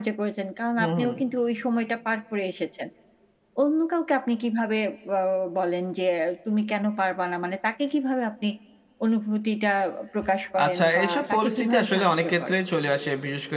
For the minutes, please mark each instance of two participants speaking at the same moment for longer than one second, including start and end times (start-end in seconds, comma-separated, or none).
10.7-12.6